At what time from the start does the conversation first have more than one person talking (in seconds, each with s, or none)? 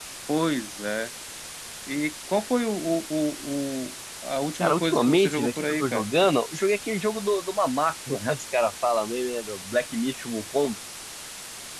4.6 s